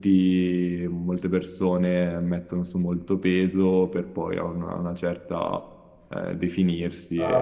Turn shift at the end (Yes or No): Yes